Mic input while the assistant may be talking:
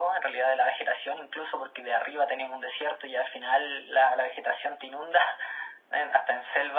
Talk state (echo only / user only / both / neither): echo only